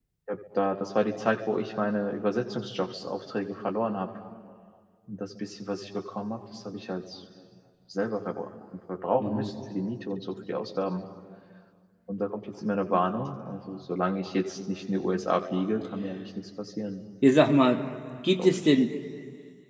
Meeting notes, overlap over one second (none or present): none